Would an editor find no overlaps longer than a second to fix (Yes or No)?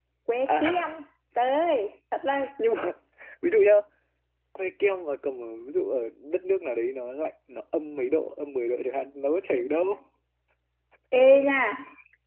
Yes